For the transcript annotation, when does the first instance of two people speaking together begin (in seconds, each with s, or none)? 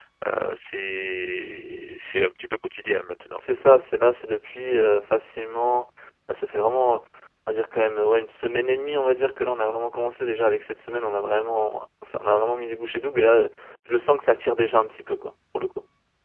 none